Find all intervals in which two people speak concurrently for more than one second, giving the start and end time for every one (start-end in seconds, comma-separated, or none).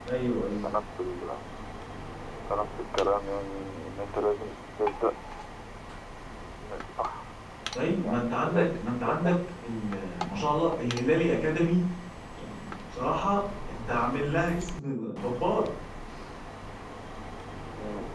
8.0-9.4